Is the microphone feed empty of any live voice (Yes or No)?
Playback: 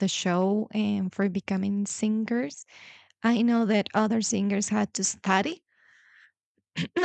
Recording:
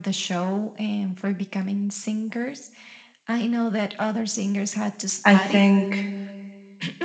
No